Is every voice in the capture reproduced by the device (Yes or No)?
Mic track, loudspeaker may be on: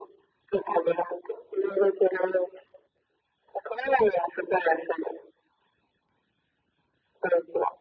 Yes